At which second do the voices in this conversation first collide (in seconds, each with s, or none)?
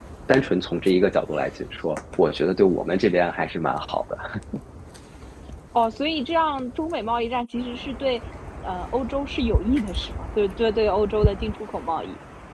none